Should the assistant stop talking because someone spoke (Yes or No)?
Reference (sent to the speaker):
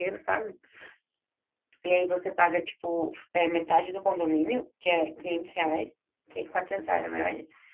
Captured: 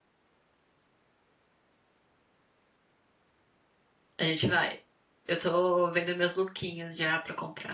Yes